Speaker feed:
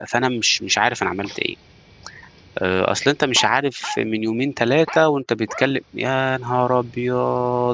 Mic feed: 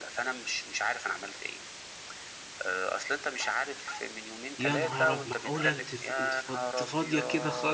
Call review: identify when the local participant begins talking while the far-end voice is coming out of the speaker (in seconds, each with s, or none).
4.6 s